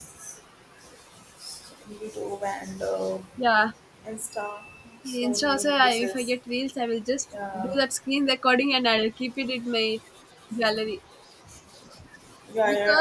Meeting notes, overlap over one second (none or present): present